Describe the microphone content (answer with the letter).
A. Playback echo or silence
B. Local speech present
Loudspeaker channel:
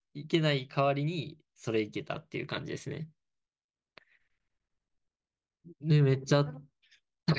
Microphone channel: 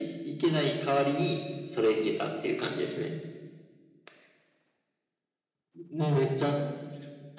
A